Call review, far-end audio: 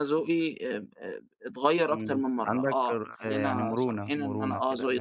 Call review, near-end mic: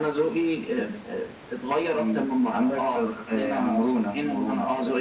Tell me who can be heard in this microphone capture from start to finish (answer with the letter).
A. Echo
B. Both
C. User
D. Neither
A